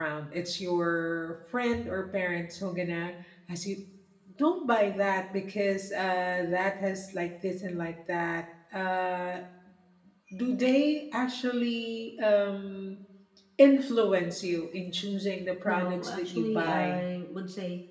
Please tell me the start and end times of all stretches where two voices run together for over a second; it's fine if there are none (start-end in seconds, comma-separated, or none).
15.7-17.1